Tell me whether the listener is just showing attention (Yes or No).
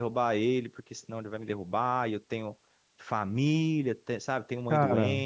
Yes